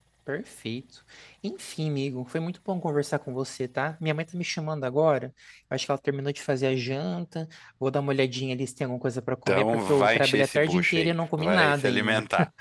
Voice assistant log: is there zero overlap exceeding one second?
No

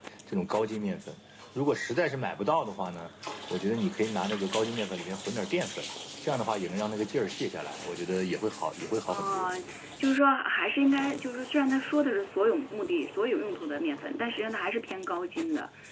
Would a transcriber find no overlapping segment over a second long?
Yes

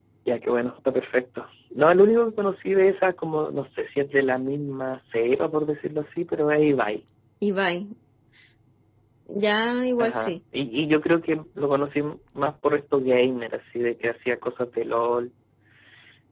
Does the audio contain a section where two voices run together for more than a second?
No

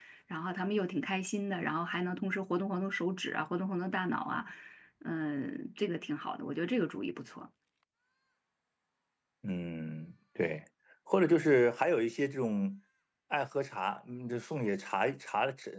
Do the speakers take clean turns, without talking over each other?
Yes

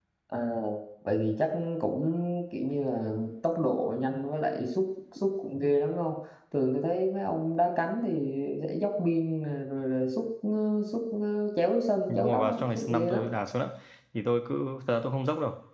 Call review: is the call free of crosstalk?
No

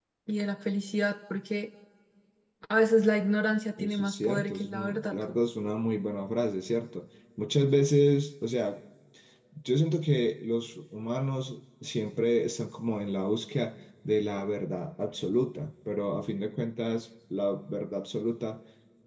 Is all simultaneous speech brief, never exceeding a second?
No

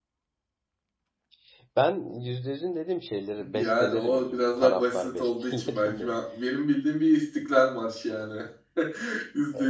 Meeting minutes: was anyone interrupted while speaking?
Yes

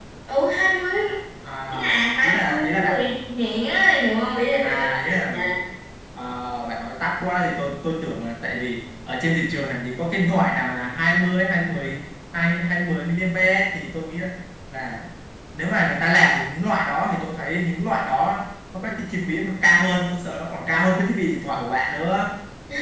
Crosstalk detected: Yes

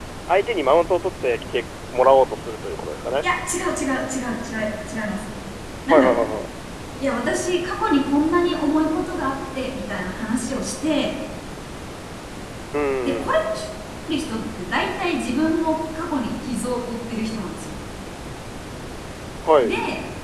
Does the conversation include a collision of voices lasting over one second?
No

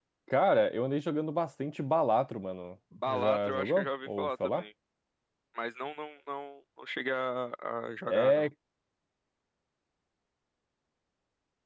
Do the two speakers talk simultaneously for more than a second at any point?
Yes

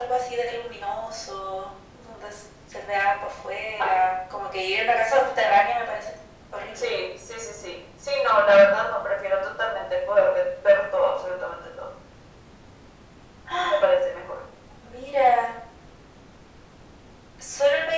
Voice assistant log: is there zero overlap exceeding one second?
Yes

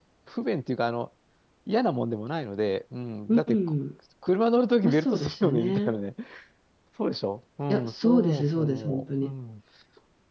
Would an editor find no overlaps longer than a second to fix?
No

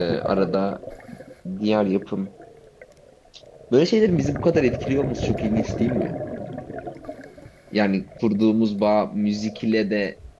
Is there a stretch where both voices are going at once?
No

